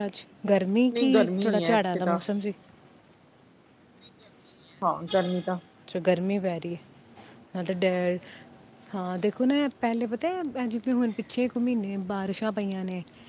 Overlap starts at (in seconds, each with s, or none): 0.9 s